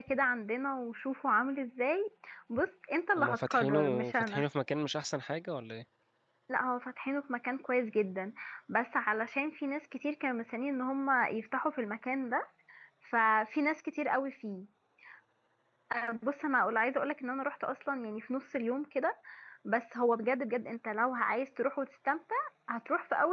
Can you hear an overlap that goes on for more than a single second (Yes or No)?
Yes